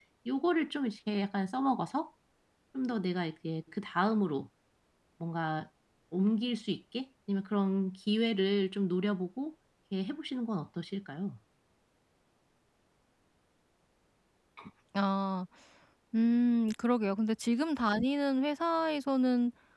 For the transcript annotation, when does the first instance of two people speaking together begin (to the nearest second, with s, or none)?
none